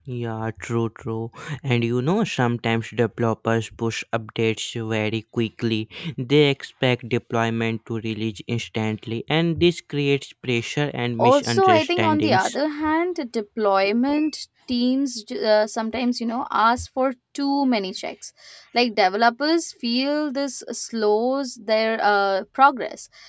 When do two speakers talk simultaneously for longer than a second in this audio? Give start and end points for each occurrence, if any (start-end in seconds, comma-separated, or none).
11.3-12.6